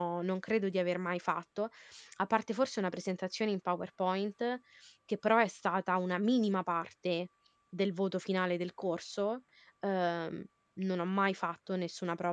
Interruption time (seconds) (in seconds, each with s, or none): none